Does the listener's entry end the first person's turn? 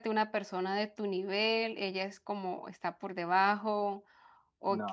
No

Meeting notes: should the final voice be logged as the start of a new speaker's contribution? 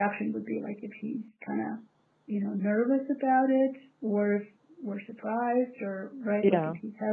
No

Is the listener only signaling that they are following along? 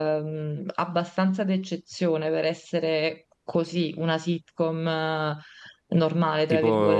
No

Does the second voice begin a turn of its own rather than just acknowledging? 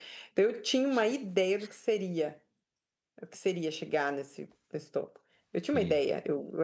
No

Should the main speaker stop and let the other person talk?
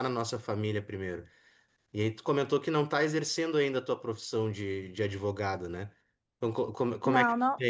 No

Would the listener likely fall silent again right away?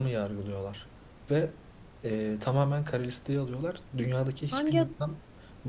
Yes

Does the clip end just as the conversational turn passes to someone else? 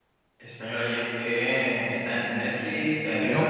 Yes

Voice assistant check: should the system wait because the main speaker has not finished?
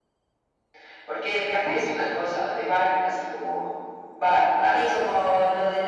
No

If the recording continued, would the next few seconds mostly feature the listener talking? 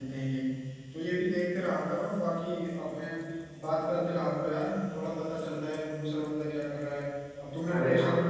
No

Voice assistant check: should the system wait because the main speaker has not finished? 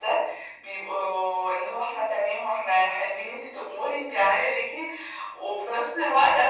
Yes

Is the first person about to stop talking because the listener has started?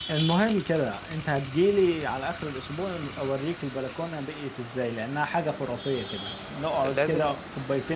No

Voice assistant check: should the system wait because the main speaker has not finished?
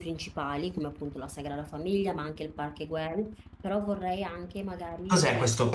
No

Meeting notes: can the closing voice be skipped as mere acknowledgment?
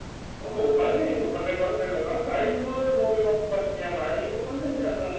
No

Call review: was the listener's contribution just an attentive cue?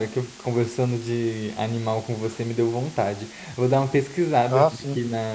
Yes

